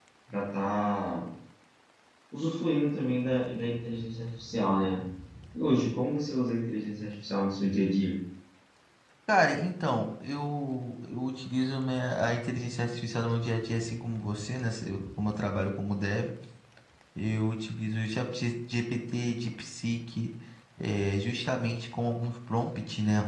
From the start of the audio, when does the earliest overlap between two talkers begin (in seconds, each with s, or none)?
none